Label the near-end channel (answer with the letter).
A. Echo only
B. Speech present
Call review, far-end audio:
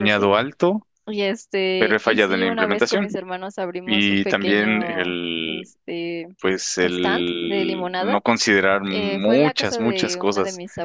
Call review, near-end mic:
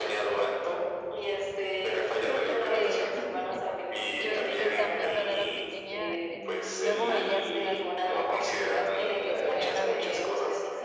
B